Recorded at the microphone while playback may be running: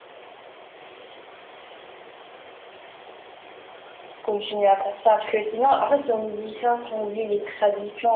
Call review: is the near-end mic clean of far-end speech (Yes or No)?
Yes